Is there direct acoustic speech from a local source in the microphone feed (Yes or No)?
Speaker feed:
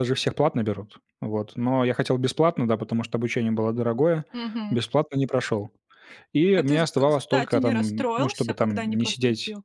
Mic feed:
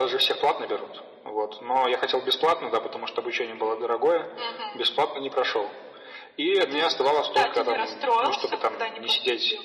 No